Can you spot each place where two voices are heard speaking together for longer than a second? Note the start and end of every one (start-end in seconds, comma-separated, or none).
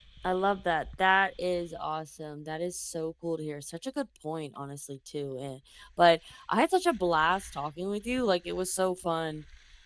none